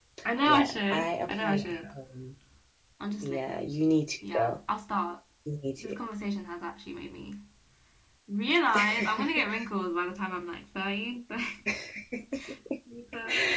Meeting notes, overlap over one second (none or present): present